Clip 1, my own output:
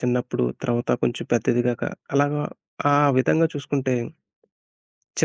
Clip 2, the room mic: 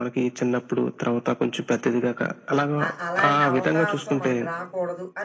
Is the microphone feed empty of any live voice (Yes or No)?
No